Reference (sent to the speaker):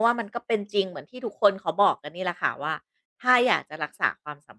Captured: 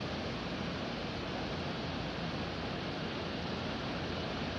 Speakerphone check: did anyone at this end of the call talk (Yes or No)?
No